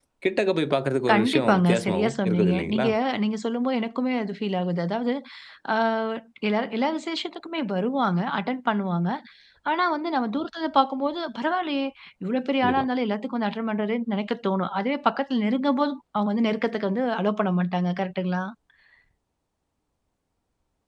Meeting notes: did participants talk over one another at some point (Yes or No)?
Yes